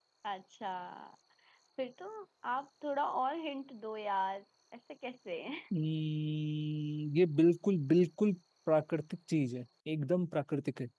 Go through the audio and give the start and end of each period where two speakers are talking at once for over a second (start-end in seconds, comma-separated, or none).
none